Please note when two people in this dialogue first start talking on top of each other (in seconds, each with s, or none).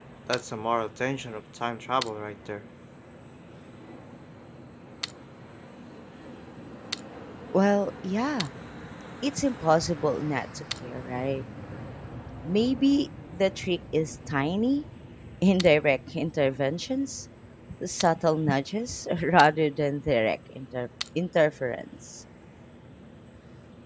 none